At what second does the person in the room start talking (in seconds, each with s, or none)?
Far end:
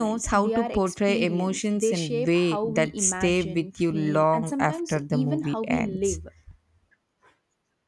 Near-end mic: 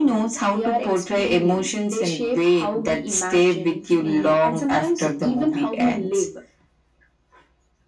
none